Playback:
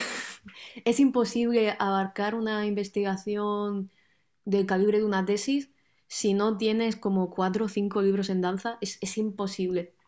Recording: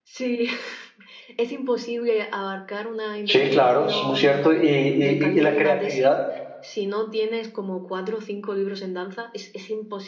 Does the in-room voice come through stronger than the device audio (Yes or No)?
Yes